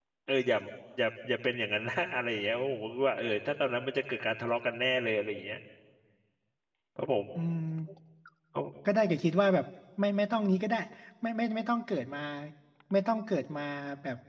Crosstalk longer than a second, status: none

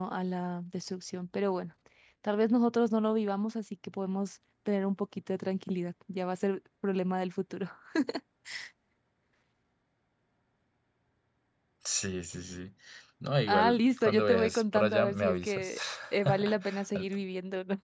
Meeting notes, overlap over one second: present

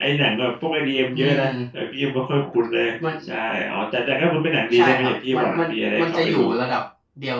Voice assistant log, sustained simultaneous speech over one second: present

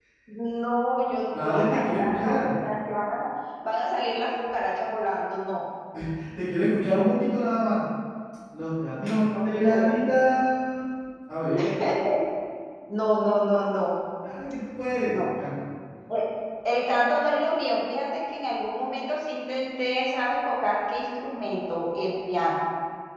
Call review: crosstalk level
present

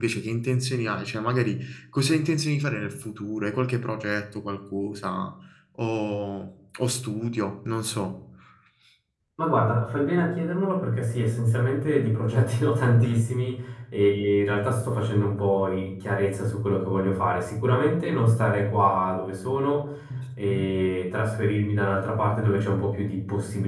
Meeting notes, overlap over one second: none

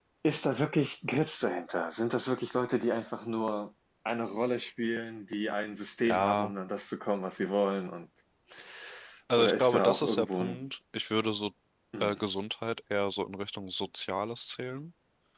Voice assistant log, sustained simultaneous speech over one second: present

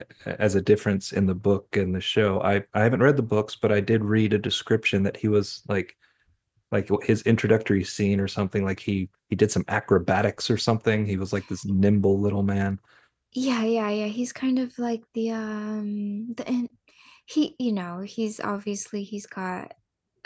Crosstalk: none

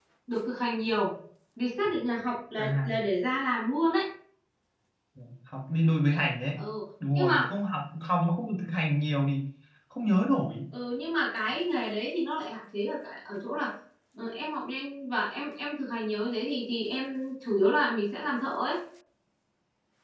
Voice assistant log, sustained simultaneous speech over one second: none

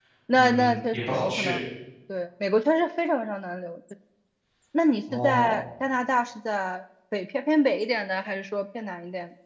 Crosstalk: present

